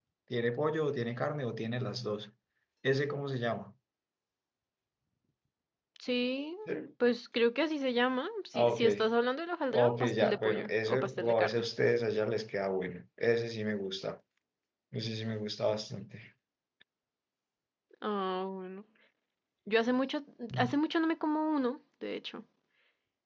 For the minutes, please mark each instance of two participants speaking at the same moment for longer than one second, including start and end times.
9.7-11.5

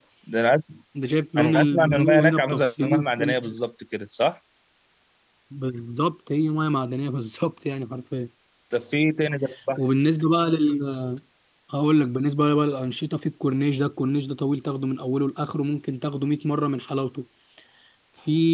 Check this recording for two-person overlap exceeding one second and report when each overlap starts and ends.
1.4-3.5

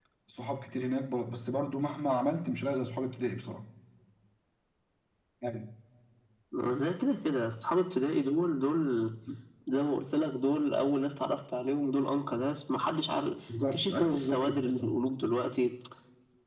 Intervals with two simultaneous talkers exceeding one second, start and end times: 13.7-15.0

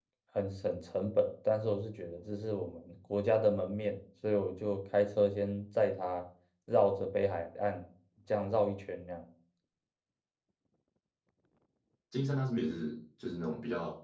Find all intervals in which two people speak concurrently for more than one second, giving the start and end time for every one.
none

